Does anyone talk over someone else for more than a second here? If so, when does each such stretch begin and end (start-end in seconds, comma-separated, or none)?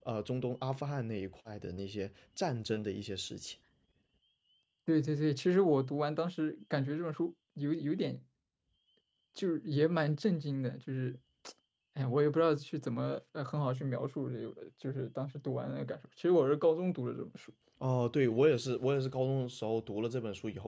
none